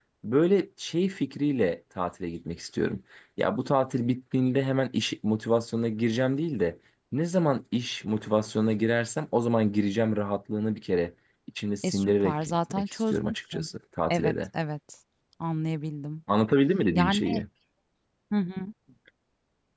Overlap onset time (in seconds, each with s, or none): 11.8 s